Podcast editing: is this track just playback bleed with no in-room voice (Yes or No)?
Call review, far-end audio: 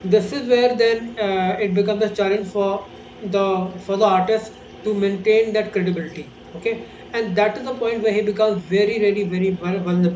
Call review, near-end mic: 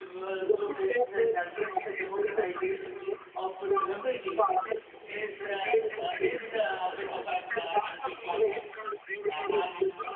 No